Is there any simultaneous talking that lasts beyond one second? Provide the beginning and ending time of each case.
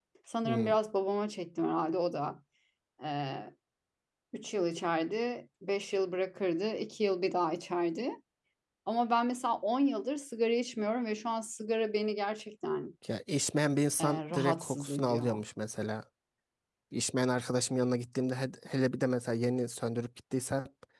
14.0-15.4

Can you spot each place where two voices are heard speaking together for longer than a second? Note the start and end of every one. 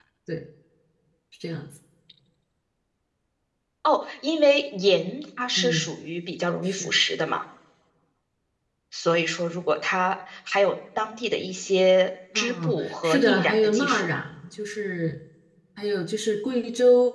12.3-14.1

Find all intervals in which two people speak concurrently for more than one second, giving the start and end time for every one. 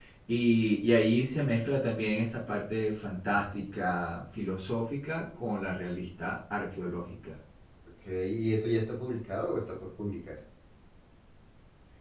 none

